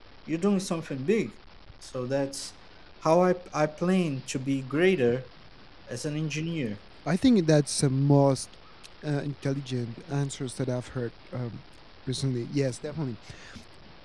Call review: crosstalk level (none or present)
none